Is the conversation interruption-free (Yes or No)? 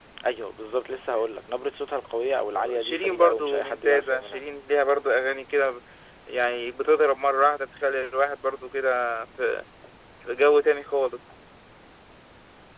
No